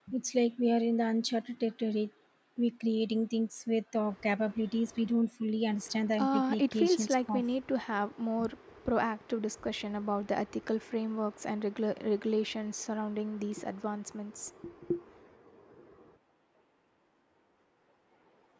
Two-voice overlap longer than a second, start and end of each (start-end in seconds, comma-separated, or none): 6.2-7.4